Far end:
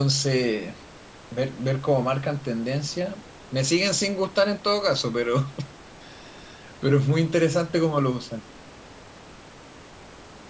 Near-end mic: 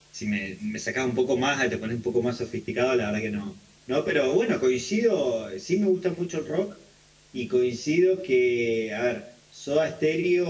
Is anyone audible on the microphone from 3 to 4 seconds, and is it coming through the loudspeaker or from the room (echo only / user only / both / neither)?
user only